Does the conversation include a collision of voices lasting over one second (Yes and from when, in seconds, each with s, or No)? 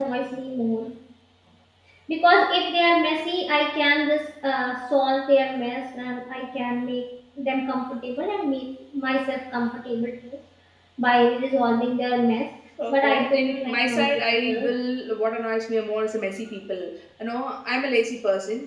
Yes, from 12.9 s